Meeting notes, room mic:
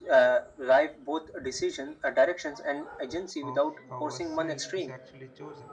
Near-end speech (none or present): present